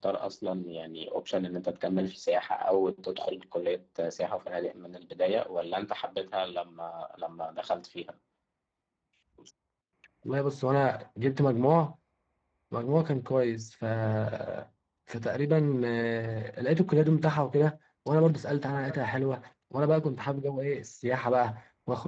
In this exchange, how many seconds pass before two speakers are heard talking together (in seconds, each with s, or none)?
none